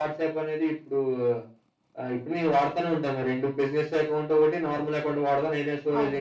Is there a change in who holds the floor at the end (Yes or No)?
No